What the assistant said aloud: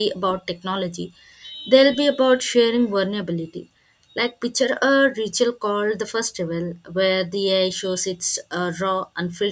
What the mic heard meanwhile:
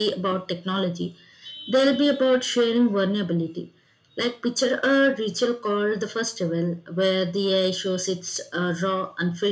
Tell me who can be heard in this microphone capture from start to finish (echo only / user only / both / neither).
echo only